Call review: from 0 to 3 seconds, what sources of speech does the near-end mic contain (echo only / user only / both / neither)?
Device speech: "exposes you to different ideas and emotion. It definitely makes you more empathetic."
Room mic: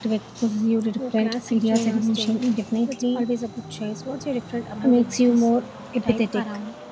both